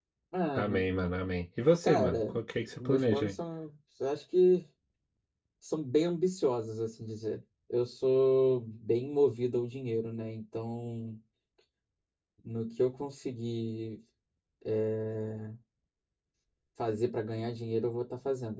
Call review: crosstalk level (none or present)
present